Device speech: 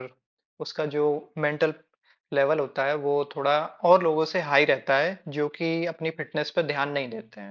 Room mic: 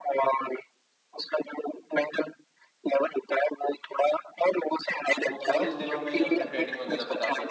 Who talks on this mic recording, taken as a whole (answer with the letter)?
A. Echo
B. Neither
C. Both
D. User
C